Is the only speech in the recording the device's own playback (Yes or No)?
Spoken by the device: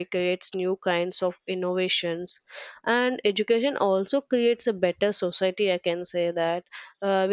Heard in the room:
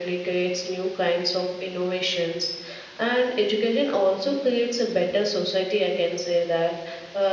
Yes